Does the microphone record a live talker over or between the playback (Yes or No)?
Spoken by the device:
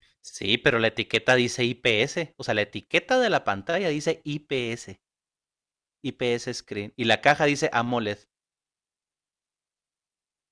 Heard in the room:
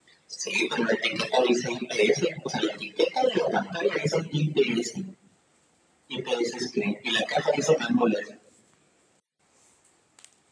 No